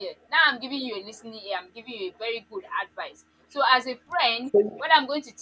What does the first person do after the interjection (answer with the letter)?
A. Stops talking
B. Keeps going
B